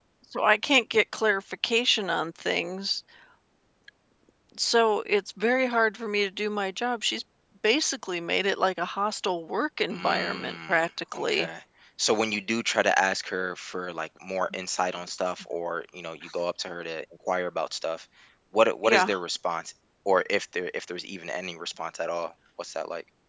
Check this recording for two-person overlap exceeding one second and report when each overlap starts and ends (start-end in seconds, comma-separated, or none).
9.9-11.5